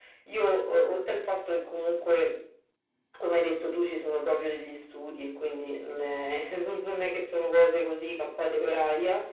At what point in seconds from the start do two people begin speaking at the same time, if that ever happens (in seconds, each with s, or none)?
none